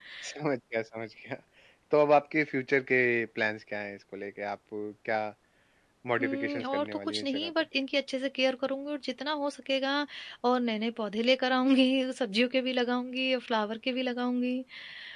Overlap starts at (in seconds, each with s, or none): 6.2 s